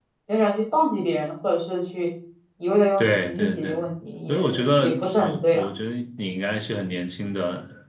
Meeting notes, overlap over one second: present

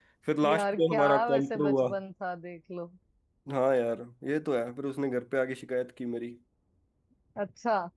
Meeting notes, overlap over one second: present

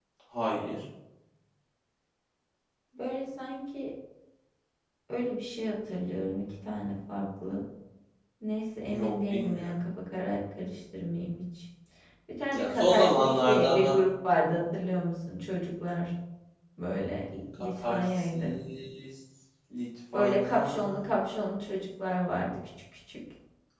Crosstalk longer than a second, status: present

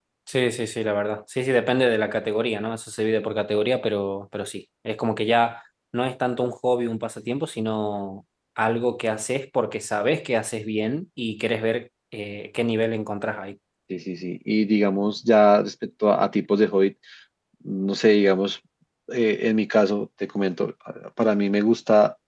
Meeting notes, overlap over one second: none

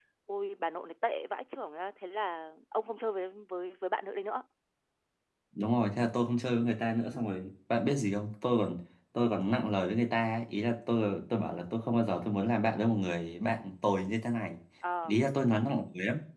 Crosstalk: none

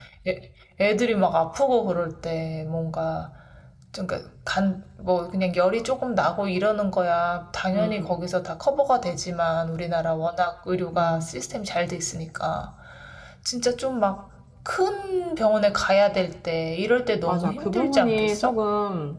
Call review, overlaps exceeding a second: present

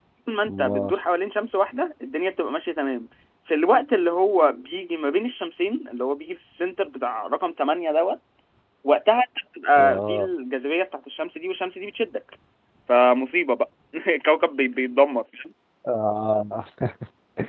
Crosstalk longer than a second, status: none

